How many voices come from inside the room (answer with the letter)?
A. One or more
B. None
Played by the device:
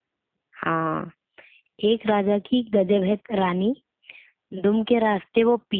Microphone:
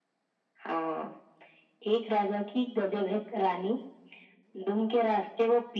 B